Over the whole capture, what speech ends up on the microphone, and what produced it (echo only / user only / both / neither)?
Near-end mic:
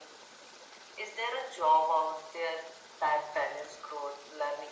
echo only